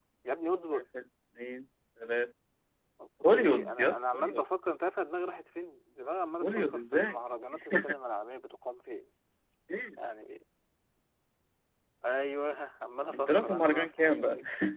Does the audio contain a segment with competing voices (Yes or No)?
Yes